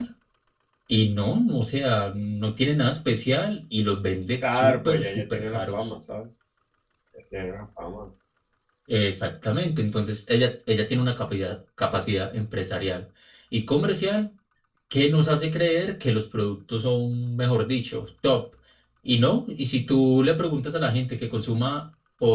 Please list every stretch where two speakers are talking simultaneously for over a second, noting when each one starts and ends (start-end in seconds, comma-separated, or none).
4.4-5.9